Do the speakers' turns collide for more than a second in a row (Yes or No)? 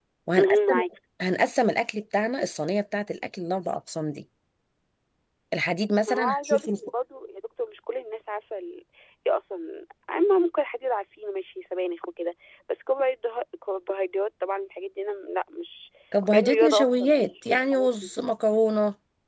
Yes